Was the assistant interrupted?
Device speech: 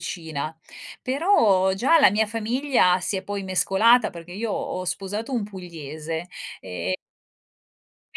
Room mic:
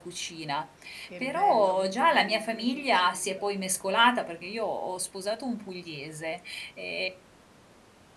Yes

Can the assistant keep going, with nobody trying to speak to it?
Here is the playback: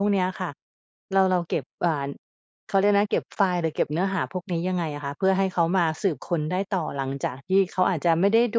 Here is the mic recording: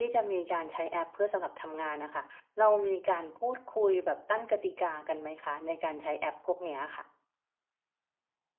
No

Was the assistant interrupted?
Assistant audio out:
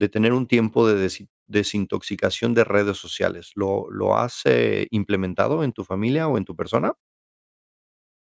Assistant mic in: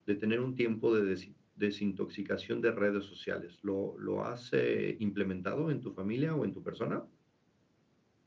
No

